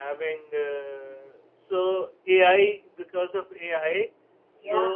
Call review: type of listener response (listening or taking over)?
listening